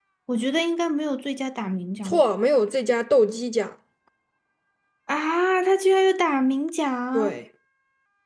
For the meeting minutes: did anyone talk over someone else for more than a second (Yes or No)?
No